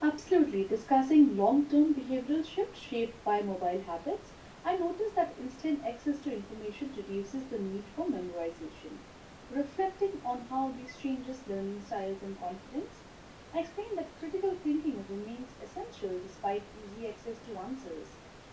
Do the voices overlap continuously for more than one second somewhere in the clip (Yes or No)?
No